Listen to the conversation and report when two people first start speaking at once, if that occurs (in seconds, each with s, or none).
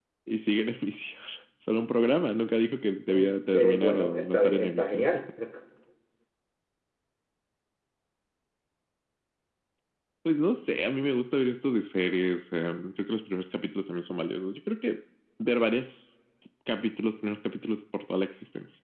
3.1 s